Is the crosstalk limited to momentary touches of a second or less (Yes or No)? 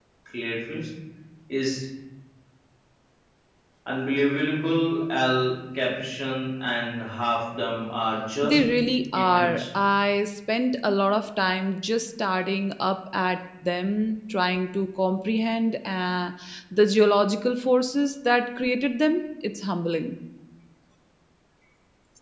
Yes